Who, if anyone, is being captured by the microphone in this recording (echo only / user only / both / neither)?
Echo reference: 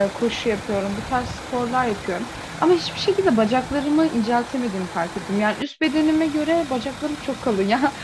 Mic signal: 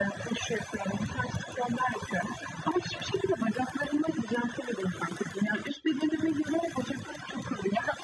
echo only